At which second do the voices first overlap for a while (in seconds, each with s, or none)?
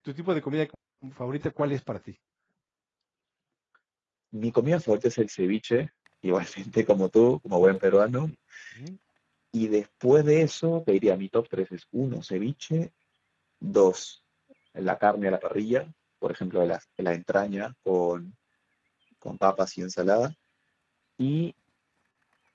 none